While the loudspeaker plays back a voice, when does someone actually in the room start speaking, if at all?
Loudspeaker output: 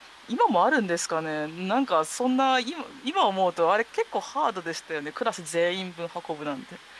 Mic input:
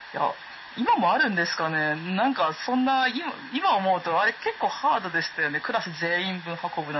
none

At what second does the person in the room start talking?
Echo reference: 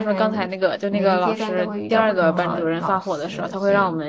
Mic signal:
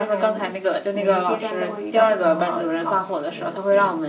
none

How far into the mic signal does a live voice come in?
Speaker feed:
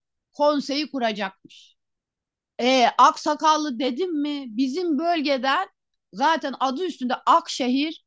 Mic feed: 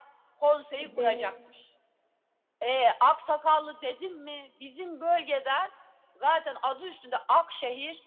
0.8 s

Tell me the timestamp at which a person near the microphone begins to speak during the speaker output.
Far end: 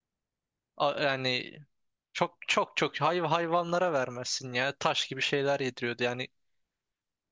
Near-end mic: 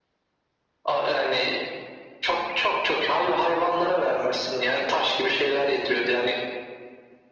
none

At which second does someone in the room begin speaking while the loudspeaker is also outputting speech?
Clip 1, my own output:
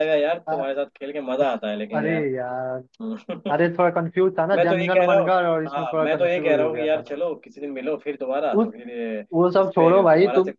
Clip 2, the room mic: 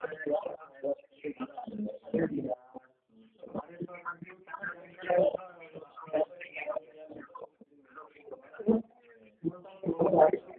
none

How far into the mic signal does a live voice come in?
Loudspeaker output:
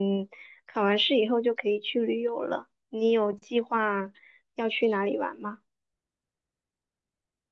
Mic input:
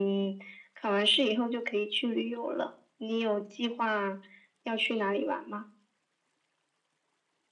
none

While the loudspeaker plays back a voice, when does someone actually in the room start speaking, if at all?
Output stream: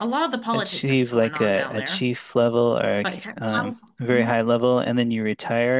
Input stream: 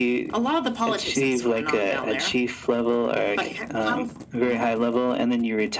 none

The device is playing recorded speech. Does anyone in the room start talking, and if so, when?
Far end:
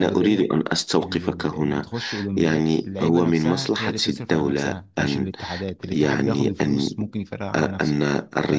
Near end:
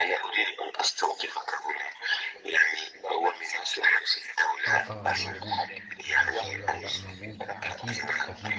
4.7 s

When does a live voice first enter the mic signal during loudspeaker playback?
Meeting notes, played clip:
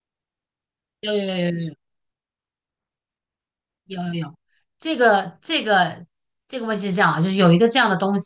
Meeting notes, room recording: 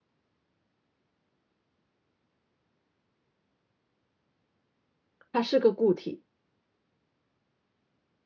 5.3 s

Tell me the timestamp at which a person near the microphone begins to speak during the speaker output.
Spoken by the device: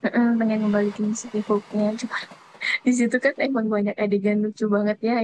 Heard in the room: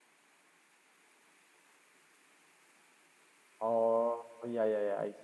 3.6 s

